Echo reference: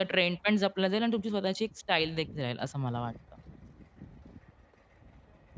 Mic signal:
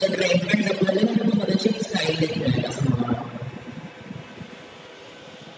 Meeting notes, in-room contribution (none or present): none